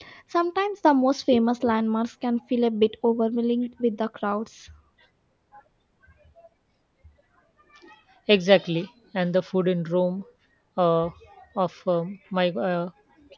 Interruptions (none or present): none